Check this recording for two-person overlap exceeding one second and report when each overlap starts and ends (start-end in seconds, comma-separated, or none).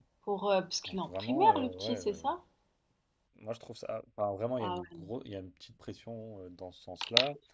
0.9-2.2